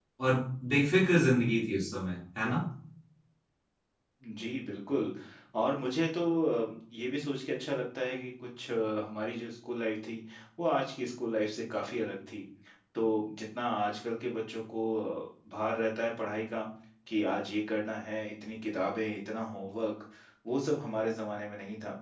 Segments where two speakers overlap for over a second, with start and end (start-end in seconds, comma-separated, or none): none